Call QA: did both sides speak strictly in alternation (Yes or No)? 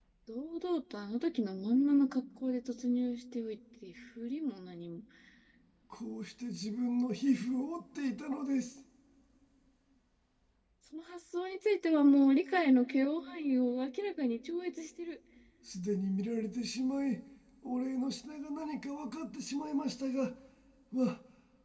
Yes